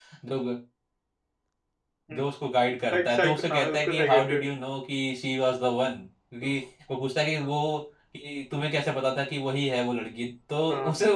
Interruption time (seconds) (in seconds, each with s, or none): 2.9 s